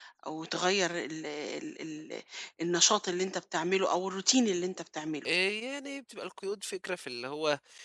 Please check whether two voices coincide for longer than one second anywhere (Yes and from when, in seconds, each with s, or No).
No